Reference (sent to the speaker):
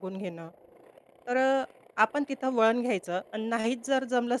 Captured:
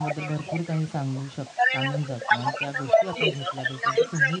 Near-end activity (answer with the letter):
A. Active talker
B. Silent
A